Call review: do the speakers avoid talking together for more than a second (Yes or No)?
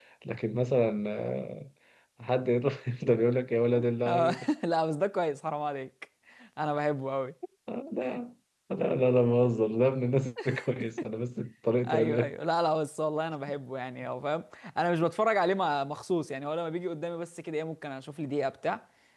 Yes